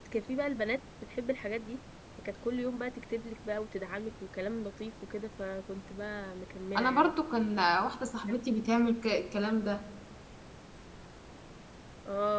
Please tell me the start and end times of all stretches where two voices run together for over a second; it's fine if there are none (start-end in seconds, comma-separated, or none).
none